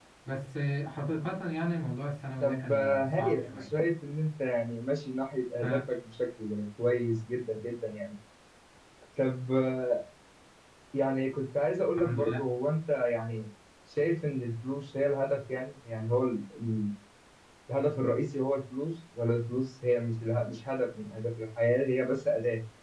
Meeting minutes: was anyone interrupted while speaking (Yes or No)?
Yes